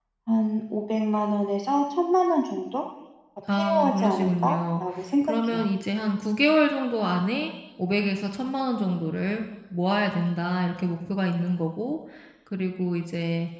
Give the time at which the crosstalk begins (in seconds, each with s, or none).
3.5 s